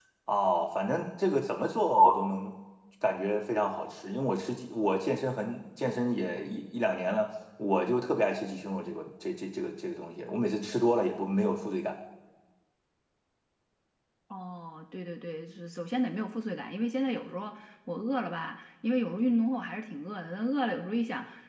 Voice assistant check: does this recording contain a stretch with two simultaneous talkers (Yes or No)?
No